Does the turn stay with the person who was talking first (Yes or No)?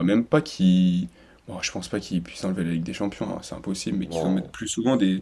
Yes